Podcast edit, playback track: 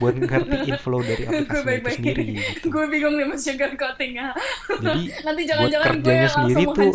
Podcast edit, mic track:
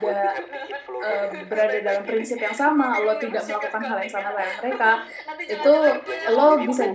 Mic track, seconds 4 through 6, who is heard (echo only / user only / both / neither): both